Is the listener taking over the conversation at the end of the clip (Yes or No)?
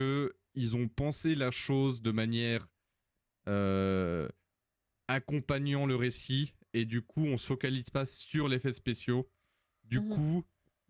No